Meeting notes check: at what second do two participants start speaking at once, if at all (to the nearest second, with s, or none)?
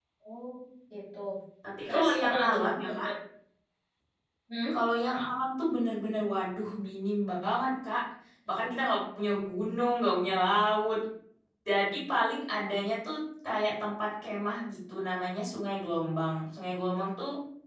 2 s